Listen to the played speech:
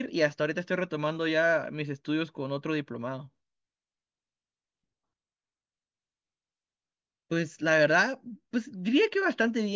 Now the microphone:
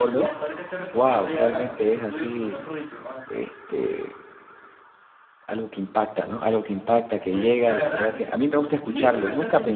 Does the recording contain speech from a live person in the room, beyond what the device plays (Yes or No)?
Yes